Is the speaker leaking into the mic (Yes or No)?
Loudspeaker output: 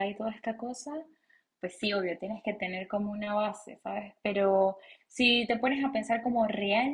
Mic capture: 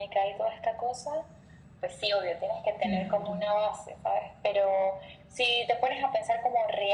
Yes